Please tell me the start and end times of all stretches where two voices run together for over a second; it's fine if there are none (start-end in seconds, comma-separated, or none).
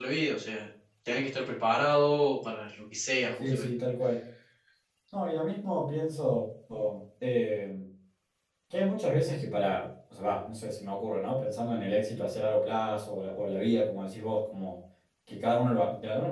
none